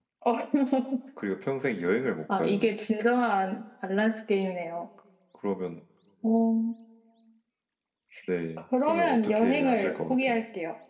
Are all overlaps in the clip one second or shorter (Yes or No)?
No